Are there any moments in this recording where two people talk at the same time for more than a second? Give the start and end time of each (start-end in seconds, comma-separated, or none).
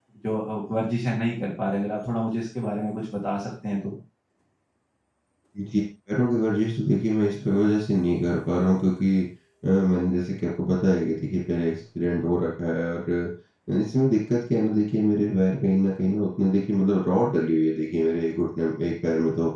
none